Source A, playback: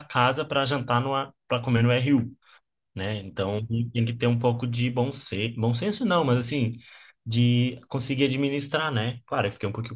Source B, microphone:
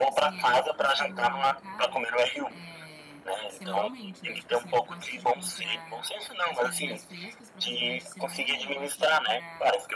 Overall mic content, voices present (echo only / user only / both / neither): both